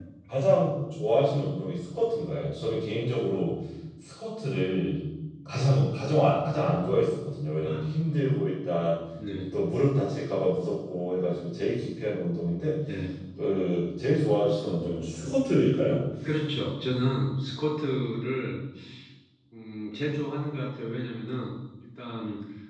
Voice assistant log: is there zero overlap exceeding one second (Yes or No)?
Yes